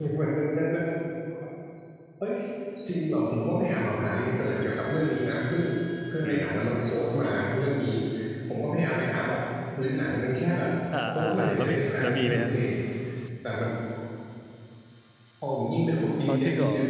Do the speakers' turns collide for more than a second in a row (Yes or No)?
Yes